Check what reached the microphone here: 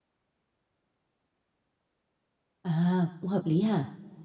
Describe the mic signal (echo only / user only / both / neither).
user only